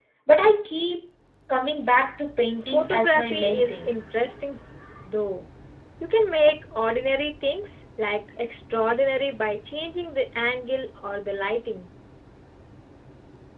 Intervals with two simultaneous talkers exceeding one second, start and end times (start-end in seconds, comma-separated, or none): 2.7-4.0